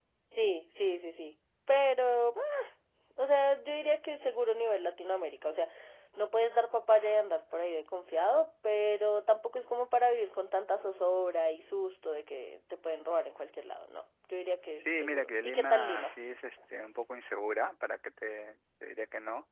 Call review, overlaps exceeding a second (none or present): present